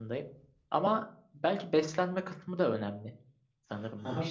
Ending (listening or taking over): taking over